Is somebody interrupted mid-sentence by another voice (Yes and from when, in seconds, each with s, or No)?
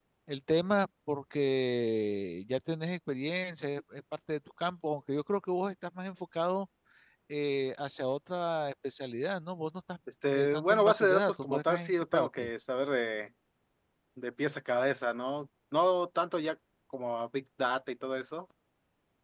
Yes, from 10.3 s